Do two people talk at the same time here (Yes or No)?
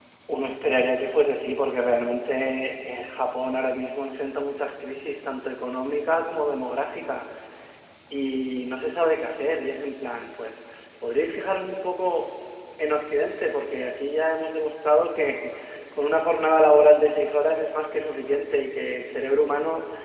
No